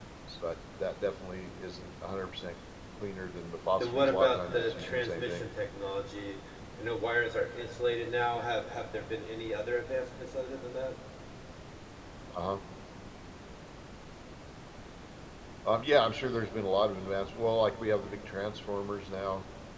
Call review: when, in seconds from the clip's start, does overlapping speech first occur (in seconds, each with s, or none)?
3.8 s